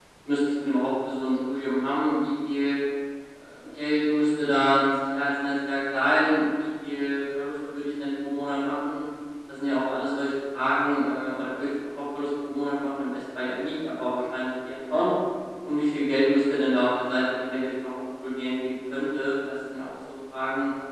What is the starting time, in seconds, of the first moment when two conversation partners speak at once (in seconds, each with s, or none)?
none